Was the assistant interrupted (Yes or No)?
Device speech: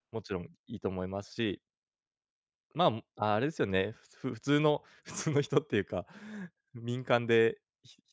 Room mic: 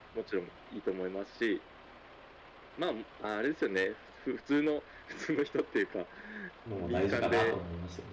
Yes